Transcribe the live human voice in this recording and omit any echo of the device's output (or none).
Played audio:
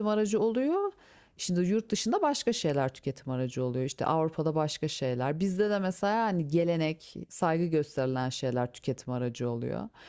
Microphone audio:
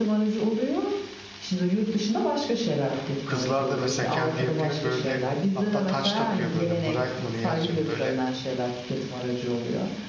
Kızlar da mesela kendi yapıyor böyle hatta taç takıyor böyle bright mı ne yazıyor böyle